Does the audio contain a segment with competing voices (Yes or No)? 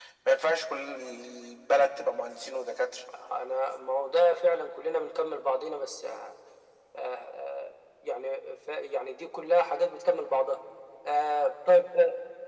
No